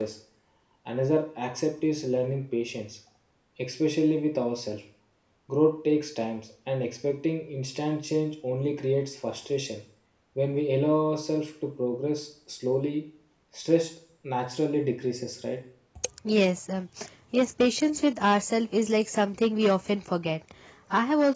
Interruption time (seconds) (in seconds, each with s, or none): none